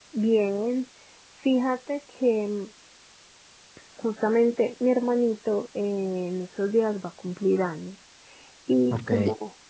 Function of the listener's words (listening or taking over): listening